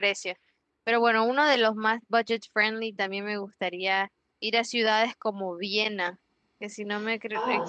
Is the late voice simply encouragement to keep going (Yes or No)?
Yes